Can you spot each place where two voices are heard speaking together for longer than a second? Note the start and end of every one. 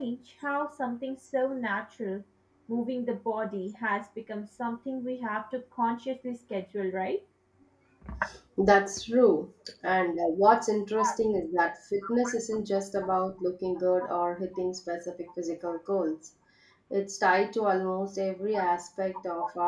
none

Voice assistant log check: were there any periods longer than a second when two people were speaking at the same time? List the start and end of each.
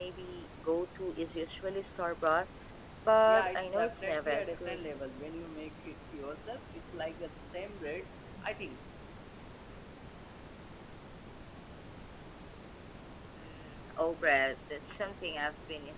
3.2-4.8

